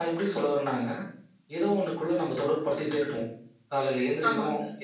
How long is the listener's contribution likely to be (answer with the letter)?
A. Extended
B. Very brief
B